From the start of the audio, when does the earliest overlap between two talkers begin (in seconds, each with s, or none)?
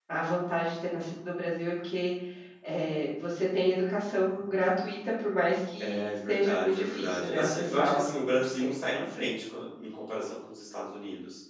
5.8 s